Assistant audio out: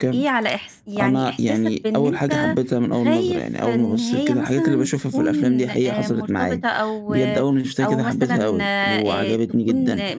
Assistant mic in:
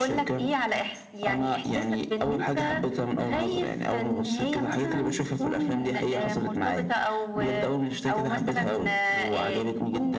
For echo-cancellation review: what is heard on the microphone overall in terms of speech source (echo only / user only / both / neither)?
echo only